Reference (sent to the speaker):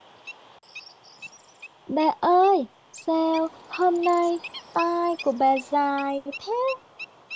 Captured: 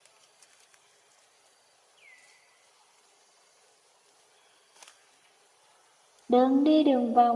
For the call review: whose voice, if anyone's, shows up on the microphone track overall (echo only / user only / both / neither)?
user only